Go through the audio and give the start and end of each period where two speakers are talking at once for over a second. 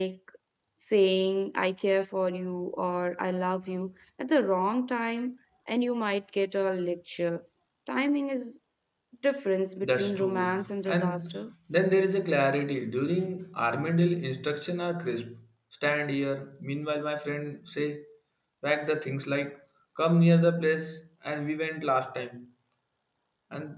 9.8-11.4

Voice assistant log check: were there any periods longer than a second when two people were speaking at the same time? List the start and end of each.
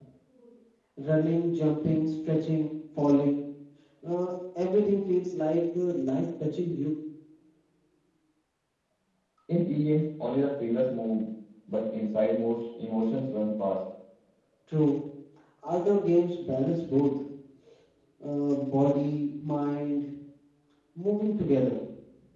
none

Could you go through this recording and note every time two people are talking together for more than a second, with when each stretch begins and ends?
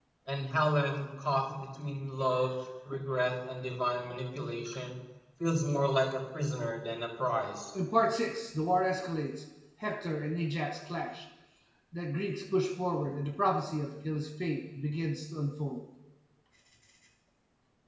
none

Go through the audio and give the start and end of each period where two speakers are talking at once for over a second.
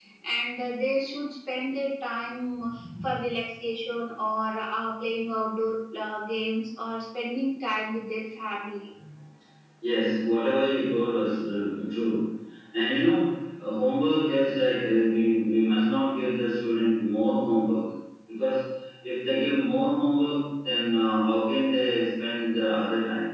none

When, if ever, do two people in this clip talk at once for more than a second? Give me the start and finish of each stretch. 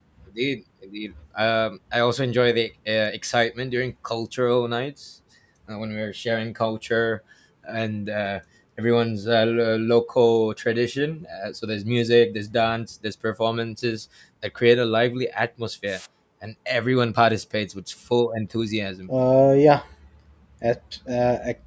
none

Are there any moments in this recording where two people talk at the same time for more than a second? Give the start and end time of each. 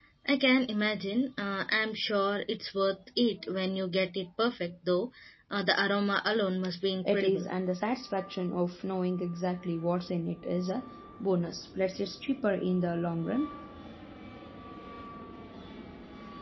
none

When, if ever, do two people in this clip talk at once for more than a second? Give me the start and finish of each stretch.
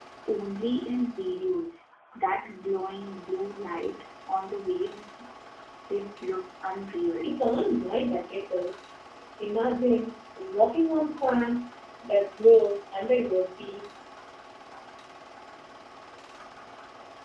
none

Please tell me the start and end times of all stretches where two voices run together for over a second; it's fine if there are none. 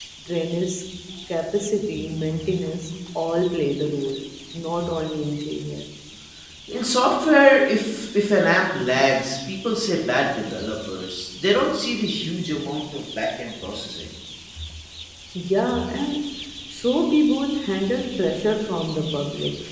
none

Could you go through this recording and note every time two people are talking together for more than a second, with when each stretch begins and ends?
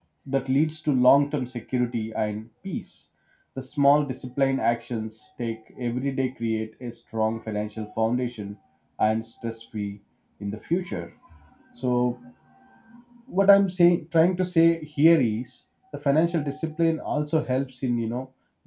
none

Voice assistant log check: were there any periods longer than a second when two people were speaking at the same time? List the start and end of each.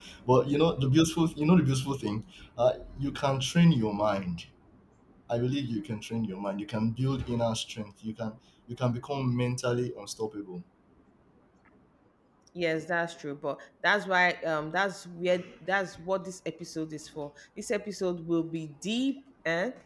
none

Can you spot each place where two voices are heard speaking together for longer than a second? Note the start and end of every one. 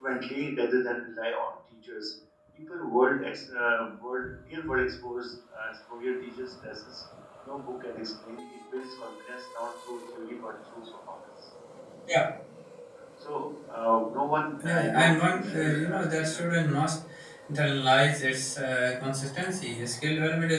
14.6-16.4

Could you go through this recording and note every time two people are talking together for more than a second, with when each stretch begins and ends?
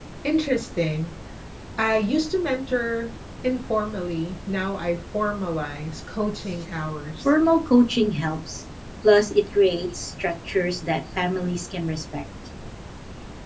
none

